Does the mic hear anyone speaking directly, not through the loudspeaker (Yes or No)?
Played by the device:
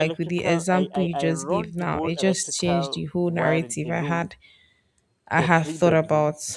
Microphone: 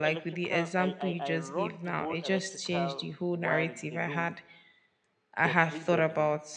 No